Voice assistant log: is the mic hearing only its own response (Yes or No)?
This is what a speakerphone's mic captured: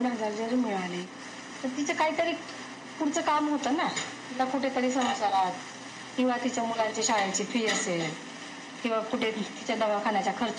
Yes